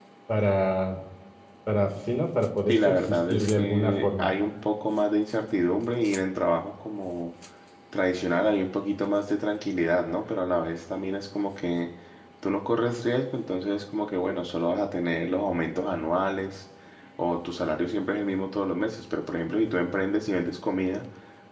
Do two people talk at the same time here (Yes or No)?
Yes